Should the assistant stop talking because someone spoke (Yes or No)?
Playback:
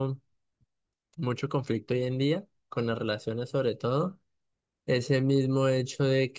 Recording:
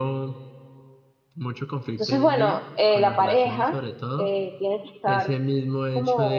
Yes